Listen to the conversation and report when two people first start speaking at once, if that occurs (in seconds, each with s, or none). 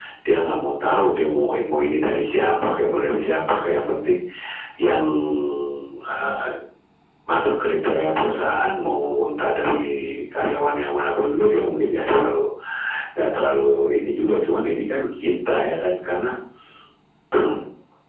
none